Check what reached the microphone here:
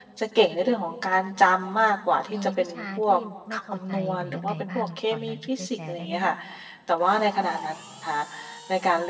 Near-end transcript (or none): มีวิชาที่ไม่เข้าใจหรือยังไงบ้างตอนนั้นช่วยแชร์ได้ไหมคะ